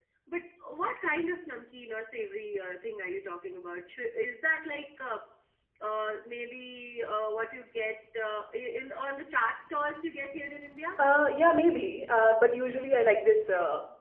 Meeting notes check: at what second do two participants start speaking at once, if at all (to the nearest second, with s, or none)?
none